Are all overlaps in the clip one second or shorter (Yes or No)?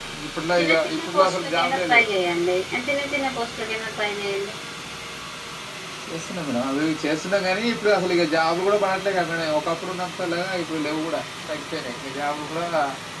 No